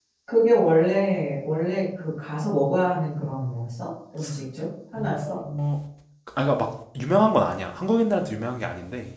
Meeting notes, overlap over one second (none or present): none